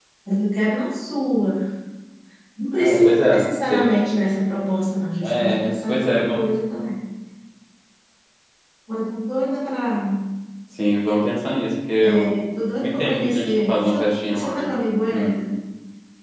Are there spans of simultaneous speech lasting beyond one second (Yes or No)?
Yes